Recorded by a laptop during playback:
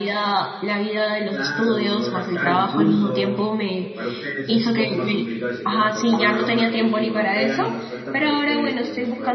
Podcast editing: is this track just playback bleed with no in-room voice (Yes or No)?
No